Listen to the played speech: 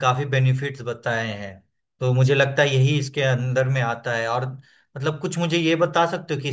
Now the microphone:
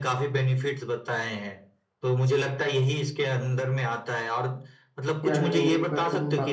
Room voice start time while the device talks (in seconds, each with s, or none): 5.2 s